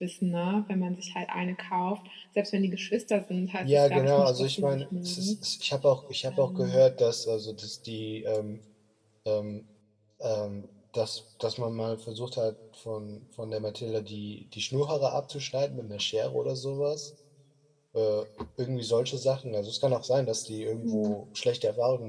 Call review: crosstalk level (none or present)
present